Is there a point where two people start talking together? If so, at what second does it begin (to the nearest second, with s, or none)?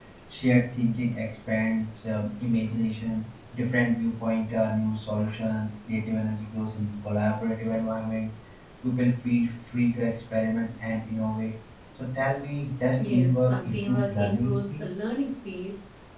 13 s